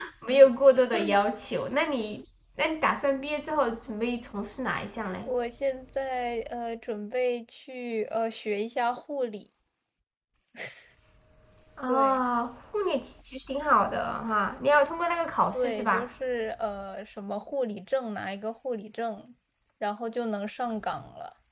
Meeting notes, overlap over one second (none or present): none